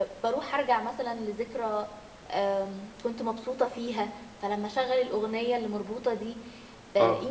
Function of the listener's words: listening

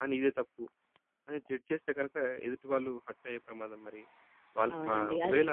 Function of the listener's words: taking over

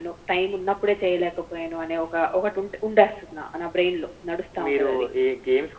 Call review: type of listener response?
taking over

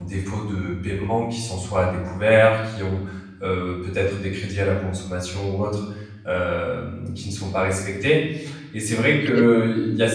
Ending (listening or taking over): listening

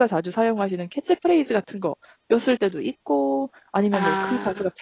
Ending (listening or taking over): listening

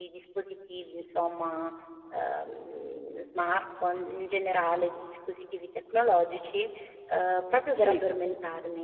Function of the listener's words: listening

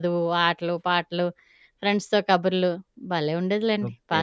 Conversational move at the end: taking over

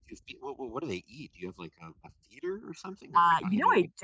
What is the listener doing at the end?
taking over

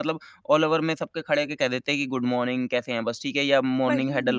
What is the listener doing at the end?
listening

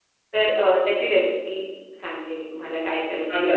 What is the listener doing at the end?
taking over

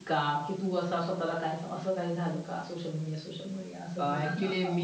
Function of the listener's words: taking over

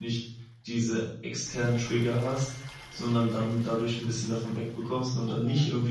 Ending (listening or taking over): listening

